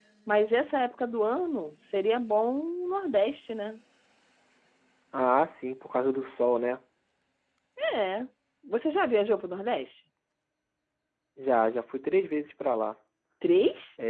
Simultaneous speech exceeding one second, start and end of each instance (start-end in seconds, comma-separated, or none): none